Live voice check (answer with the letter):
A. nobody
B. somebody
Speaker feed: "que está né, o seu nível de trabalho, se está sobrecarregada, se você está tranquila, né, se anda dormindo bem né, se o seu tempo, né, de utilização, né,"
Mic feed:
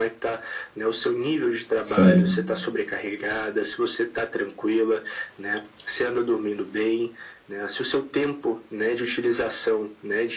B